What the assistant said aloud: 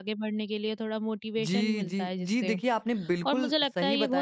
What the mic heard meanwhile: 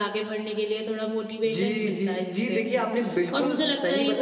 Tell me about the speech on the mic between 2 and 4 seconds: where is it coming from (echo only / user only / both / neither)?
echo only